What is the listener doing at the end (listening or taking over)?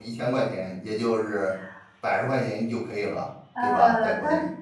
taking over